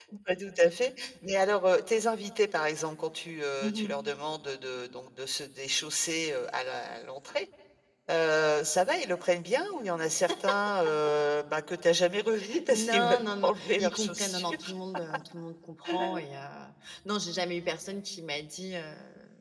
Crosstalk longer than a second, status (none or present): present